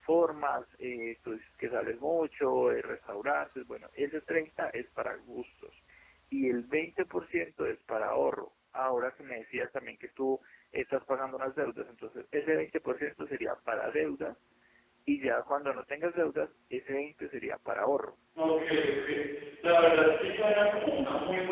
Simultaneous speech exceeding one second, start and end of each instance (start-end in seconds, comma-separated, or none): none